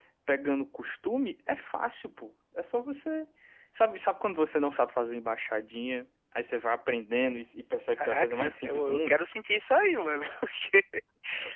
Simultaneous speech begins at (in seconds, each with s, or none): 7.9 s